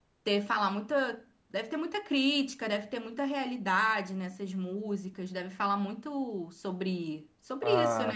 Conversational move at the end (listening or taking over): taking over